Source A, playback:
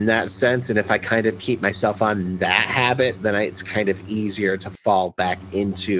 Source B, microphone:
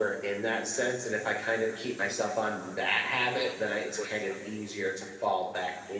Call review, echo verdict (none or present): present